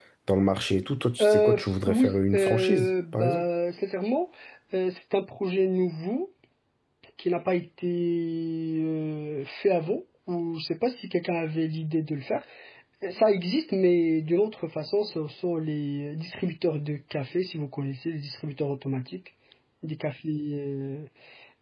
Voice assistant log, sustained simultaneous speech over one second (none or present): present